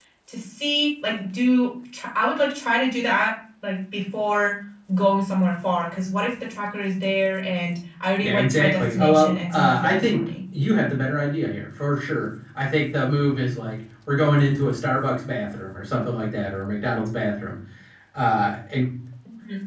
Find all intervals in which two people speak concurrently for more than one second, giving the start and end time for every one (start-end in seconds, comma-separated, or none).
8.2-10.3